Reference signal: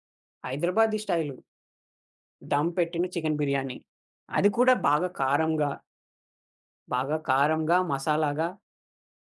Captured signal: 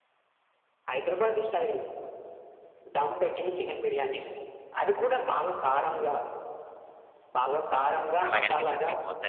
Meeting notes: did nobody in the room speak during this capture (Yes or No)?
No